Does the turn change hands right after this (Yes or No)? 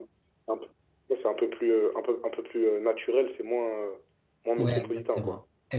Yes